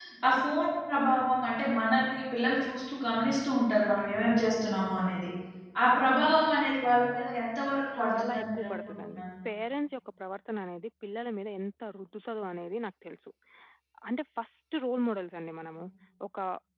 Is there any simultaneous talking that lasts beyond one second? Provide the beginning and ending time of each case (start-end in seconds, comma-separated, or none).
8.0-9.2